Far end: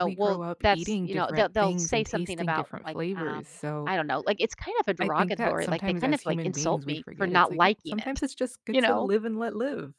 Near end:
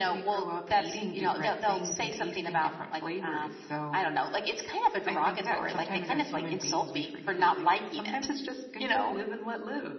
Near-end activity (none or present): none